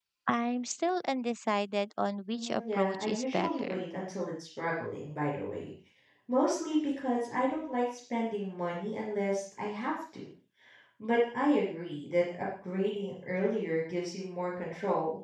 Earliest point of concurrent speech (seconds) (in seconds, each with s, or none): 2.3 s